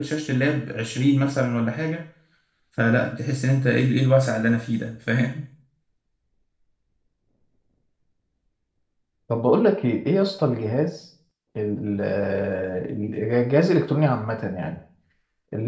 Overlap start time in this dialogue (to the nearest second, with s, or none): none